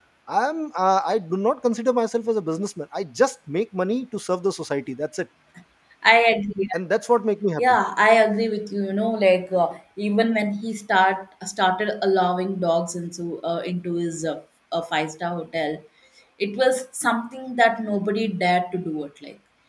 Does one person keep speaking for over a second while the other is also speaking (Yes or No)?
No